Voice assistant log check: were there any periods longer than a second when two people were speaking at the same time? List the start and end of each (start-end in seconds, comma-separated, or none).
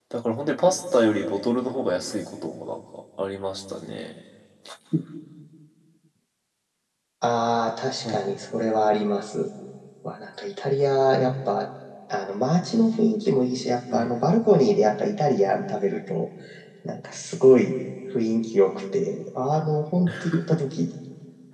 none